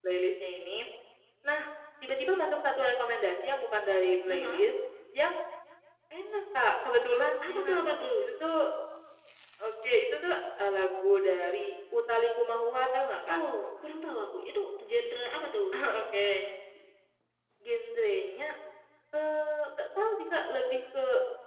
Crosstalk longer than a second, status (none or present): none